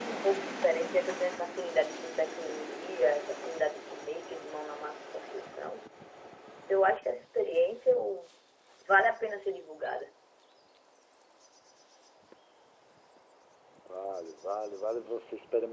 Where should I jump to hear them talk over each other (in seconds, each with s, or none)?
none